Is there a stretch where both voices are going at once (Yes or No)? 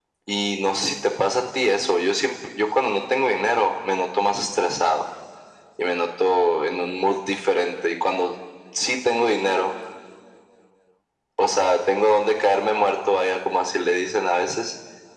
No